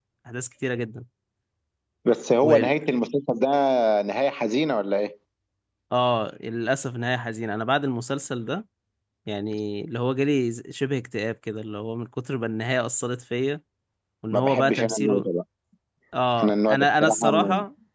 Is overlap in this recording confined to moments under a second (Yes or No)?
No